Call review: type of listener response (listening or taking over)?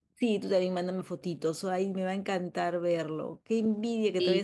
listening